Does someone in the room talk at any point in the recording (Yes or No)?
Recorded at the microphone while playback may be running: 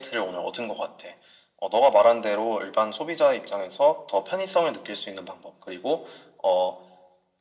No